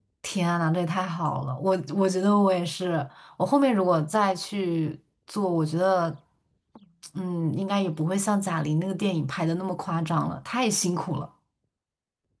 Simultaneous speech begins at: none

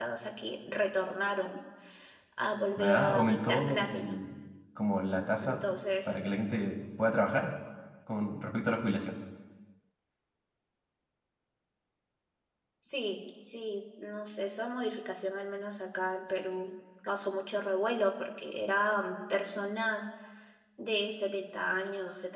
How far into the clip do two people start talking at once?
2.8 s

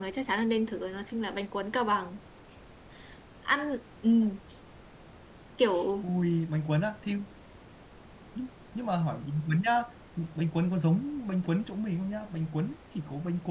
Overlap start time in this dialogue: none

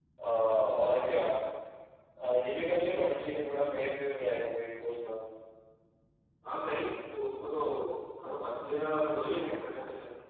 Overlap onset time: none

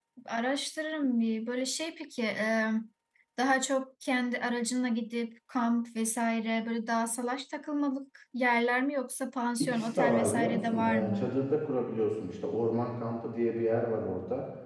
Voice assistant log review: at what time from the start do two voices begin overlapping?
9.6 s

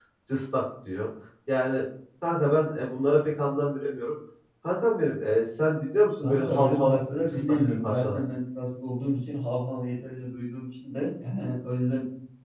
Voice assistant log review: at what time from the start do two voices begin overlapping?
6.2 s

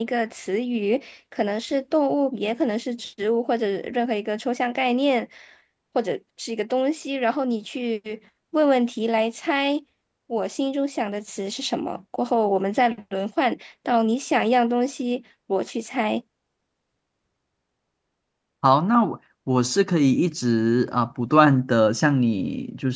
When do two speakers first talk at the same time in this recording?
none

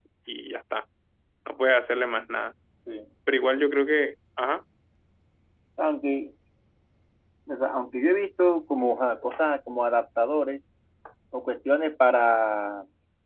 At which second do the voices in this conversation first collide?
none

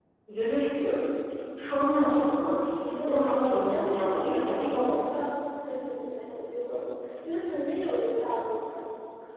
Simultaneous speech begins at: 2.7 s

